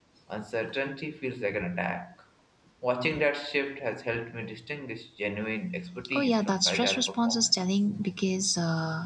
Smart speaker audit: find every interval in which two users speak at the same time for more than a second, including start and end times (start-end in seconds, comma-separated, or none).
6.1-7.6